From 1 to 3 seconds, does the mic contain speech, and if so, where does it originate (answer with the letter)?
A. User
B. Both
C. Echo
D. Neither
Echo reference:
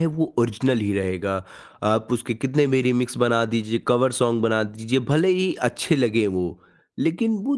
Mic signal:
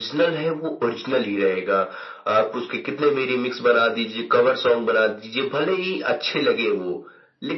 C